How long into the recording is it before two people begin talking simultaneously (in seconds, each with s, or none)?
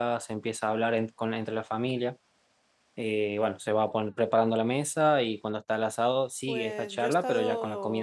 6.5 s